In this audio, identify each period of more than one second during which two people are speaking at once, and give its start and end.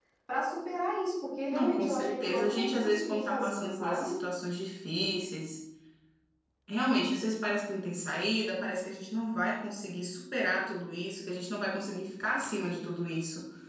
1.5-4.1

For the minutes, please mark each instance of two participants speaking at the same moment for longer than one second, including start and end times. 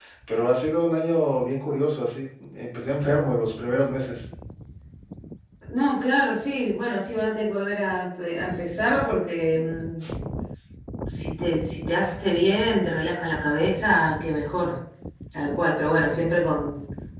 none

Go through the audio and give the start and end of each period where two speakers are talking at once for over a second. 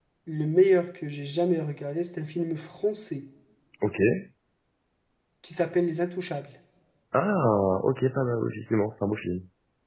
none

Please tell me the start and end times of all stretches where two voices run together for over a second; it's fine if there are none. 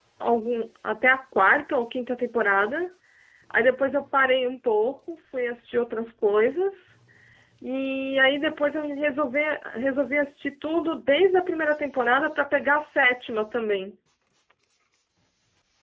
none

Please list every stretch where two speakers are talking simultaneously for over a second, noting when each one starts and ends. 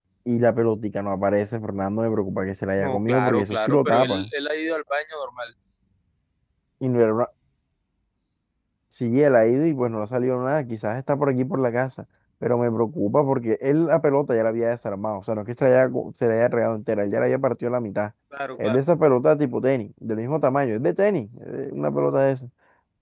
2.8-4.3

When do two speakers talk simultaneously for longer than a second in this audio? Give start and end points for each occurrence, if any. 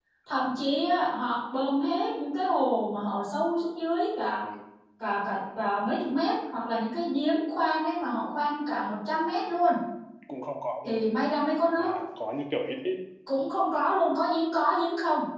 none

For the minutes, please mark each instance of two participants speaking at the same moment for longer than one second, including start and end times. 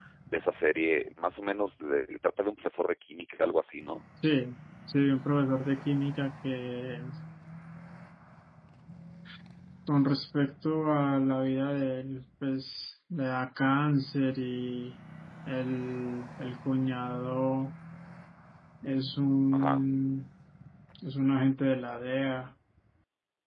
none

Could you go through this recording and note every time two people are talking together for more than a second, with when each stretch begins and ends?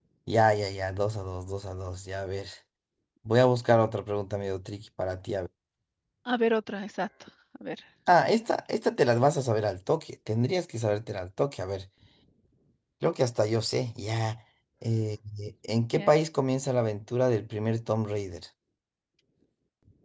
none

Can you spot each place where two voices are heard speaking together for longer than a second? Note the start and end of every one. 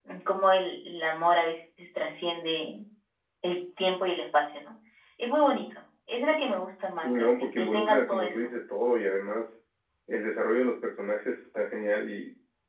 7.0-8.3

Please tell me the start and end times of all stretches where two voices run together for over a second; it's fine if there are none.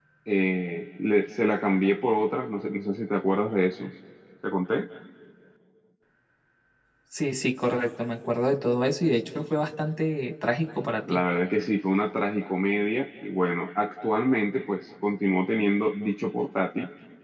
none

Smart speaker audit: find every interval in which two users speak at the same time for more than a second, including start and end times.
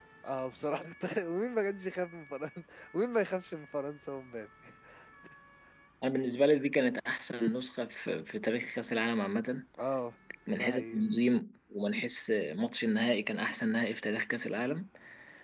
none

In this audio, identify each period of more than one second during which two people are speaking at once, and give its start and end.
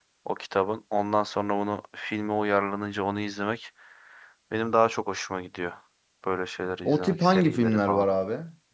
6.8-8.1

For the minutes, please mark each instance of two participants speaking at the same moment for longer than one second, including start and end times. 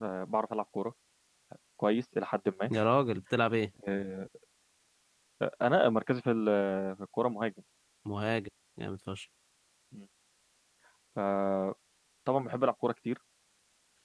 none

